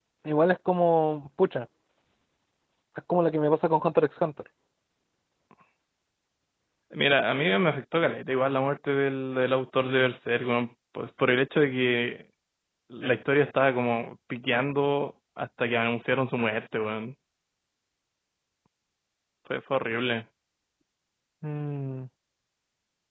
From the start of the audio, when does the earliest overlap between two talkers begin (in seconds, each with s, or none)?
none